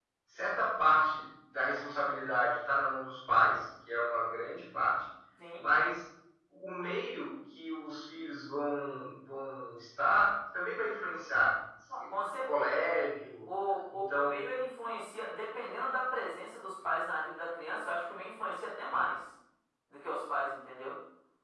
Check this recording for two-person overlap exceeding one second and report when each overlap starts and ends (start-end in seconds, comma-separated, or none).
none